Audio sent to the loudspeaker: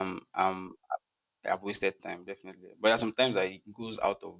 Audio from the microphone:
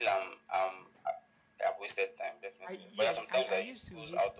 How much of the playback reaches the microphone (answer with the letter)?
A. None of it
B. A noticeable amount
B